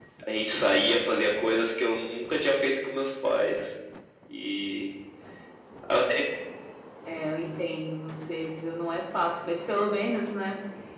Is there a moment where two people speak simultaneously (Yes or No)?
No